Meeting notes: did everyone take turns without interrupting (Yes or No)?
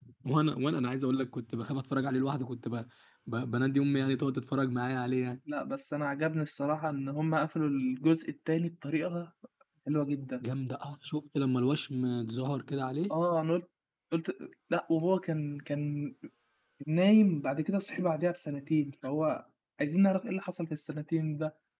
Yes